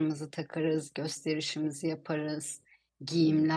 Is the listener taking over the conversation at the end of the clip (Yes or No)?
No